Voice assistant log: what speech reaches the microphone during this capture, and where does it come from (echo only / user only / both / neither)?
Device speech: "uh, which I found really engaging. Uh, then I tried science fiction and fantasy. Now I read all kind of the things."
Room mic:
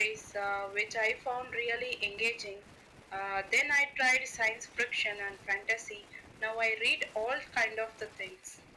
echo only